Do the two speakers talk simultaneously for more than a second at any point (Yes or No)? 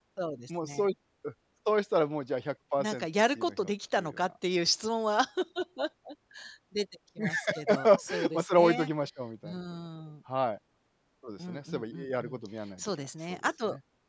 Yes